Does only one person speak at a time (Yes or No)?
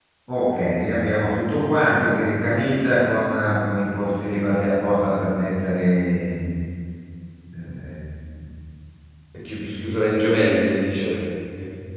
Yes